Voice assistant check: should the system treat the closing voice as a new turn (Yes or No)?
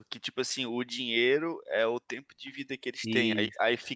No